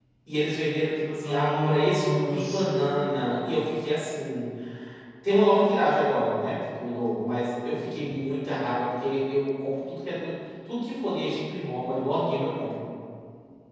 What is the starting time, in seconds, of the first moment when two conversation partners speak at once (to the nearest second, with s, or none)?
1 s